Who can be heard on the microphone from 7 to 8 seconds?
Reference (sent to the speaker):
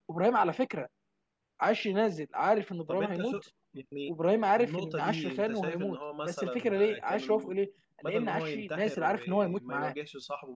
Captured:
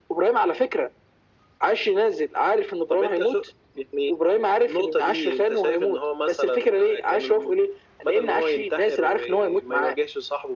echo only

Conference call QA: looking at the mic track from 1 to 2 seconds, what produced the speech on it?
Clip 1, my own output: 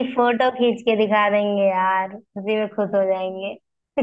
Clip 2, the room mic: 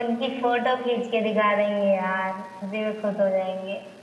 echo only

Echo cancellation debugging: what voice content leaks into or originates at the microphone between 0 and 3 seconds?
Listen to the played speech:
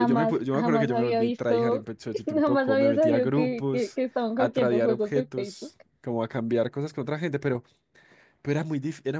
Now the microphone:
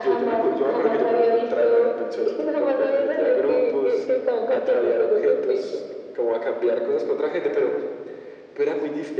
echo only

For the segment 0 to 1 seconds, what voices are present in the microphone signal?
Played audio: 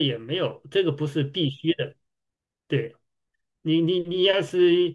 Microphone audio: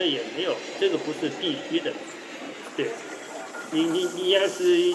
echo only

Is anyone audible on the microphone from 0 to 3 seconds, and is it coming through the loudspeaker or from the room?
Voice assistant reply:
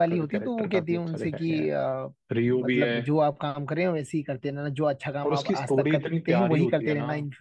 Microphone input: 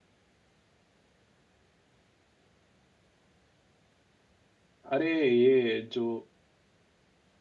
neither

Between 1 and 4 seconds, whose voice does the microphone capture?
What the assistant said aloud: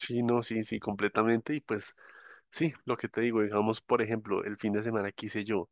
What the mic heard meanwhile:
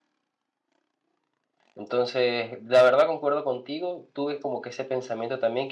user only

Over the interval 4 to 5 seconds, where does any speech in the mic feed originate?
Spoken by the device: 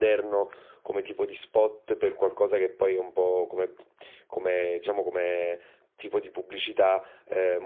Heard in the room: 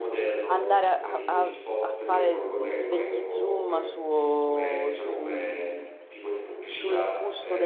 both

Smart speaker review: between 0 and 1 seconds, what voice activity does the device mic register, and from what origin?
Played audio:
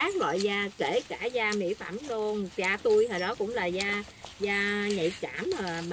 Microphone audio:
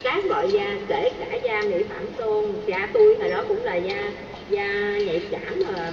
echo only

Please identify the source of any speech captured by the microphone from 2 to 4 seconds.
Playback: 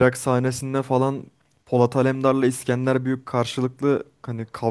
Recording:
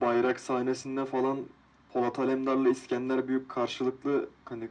echo only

